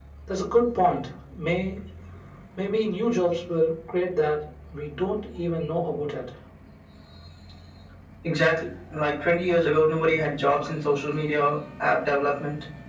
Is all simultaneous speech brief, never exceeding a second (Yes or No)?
Yes